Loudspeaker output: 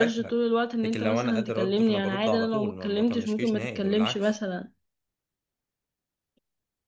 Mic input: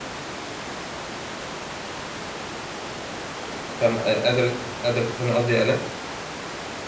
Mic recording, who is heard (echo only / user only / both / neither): user only